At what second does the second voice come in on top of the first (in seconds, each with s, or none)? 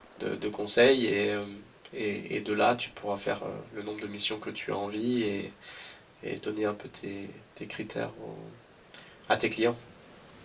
none